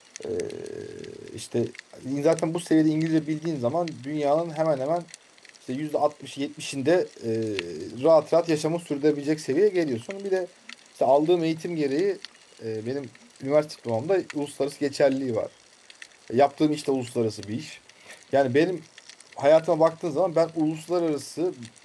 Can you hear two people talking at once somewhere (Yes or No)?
No